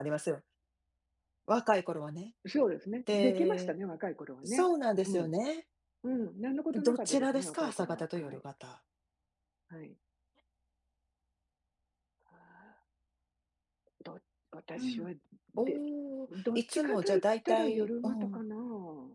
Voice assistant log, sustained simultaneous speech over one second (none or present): present